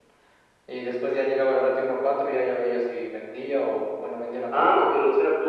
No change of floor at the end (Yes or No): No